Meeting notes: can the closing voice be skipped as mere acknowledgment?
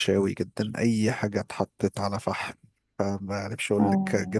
Yes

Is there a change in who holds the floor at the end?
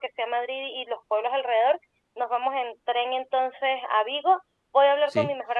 No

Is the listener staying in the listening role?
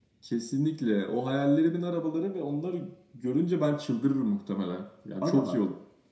No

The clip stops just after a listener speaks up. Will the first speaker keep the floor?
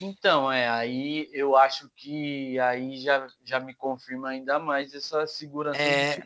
Yes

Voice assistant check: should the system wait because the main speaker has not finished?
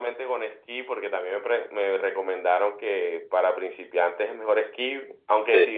Yes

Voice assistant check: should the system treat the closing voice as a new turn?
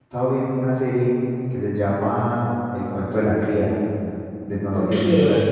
Yes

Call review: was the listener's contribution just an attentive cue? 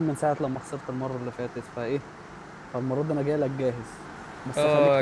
No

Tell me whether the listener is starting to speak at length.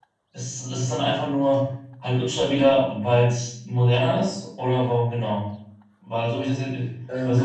No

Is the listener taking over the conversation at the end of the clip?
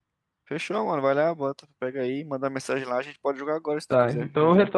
Yes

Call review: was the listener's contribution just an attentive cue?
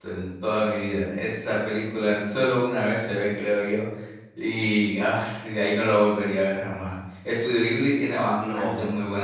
Yes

